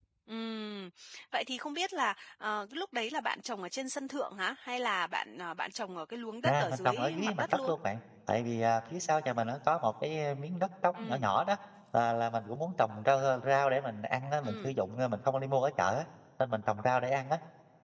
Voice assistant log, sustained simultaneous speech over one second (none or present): present